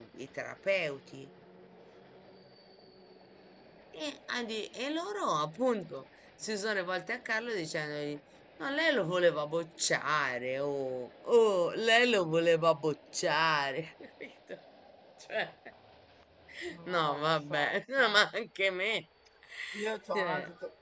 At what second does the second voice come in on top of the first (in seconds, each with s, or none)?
16.9 s